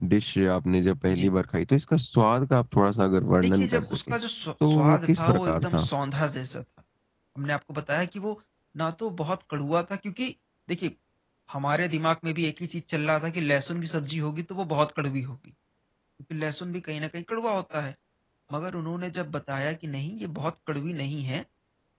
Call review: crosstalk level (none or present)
present